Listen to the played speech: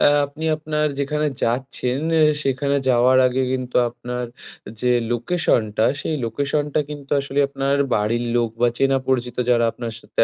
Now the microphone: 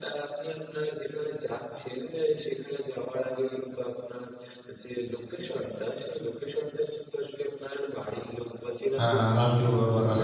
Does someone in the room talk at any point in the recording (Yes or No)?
Yes